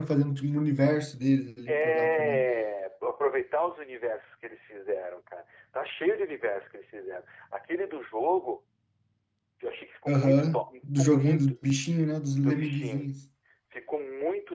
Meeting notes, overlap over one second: present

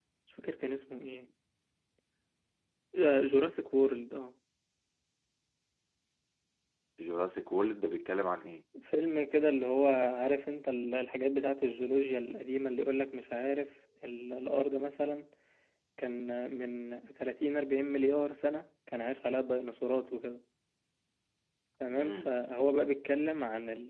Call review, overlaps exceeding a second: none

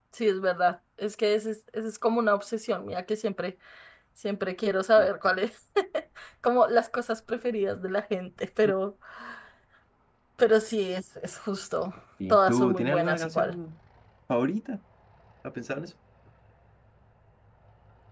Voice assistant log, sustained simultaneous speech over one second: present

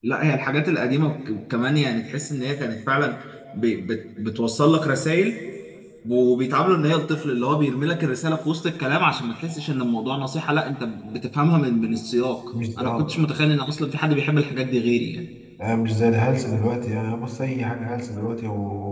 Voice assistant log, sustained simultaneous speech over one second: none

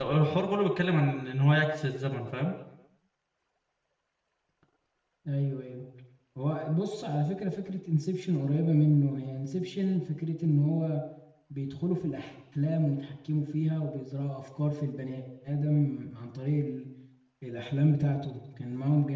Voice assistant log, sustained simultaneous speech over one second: none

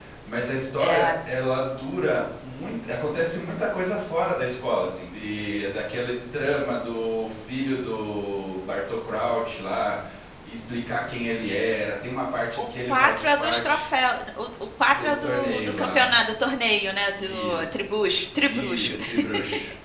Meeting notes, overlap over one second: present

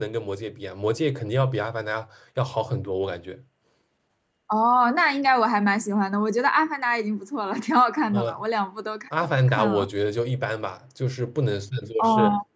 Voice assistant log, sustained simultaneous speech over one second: none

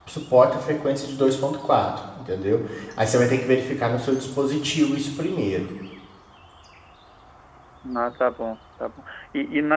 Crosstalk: none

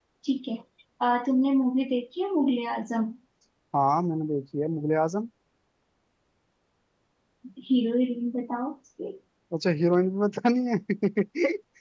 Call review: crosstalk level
none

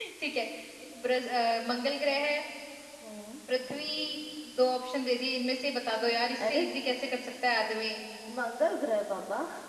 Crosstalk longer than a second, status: none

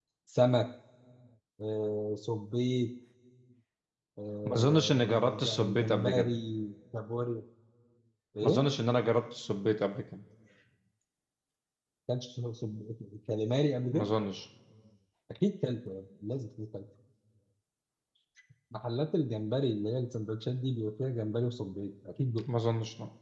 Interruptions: present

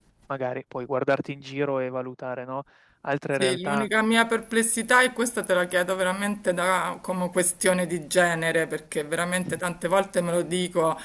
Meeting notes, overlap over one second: none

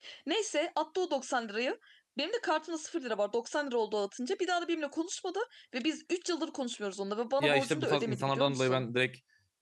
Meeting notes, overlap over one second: present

